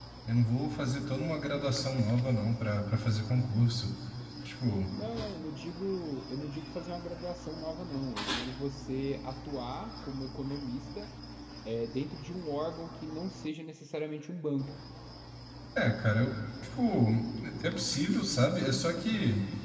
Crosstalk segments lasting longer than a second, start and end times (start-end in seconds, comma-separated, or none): none